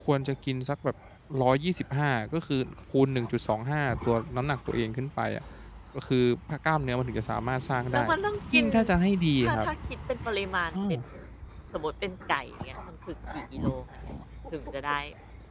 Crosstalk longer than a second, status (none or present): none